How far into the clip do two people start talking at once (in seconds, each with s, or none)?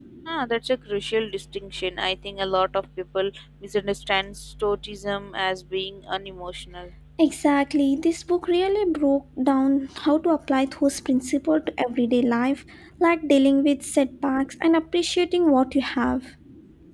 none